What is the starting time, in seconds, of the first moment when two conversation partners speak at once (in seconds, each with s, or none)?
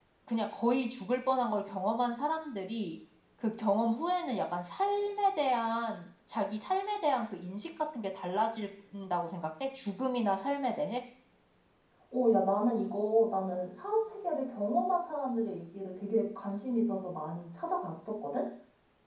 none